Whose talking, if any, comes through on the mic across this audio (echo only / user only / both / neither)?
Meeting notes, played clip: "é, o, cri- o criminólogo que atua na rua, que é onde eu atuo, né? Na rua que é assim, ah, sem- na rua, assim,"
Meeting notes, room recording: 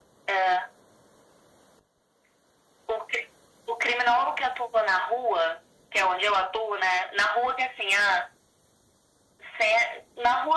echo only